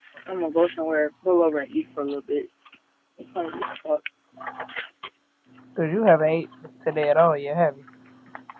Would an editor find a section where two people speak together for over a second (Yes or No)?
No